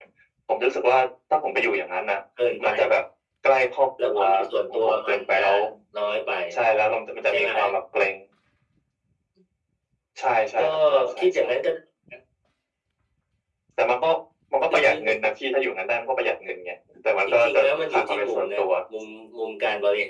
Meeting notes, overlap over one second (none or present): present